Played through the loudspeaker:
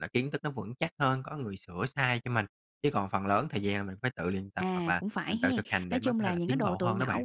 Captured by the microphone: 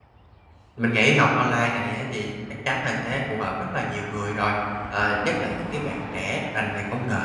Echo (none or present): none